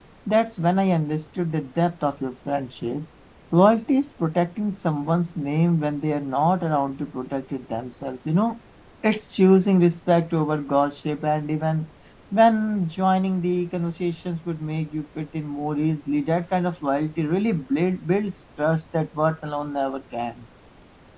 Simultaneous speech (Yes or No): No